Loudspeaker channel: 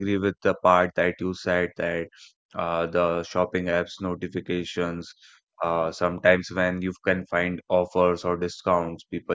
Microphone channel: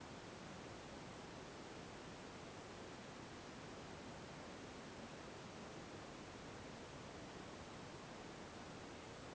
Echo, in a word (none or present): none